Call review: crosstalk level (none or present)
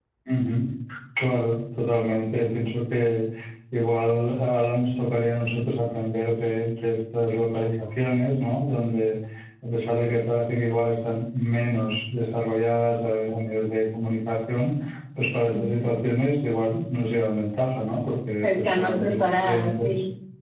present